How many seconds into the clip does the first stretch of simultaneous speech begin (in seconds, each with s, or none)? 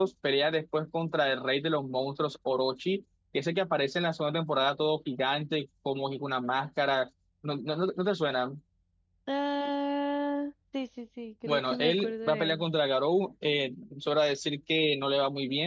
11.4 s